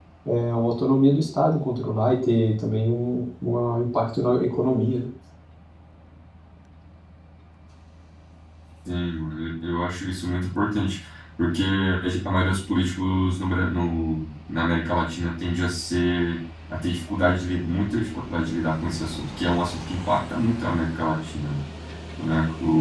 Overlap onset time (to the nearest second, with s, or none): none